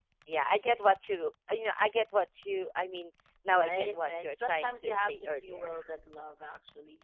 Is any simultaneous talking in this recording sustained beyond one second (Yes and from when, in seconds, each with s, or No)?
Yes, from 3.4 s